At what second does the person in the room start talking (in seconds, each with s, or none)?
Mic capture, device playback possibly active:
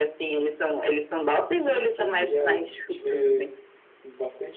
1.5 s